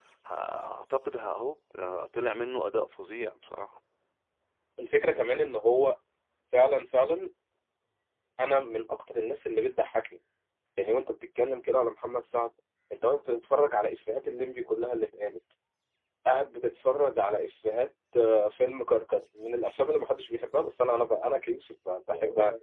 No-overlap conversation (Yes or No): Yes